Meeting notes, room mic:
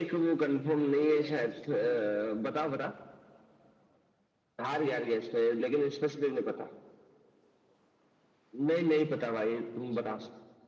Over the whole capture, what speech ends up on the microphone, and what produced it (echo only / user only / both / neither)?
both